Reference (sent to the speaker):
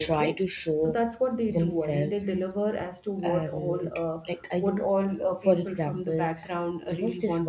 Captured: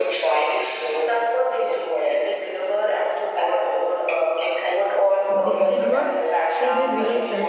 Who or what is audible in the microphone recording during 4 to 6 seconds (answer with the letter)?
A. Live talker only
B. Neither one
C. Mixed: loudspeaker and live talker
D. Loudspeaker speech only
C